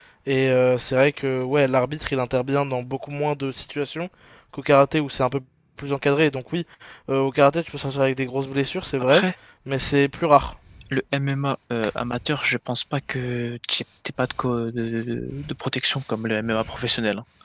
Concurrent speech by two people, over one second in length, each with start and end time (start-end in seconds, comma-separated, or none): none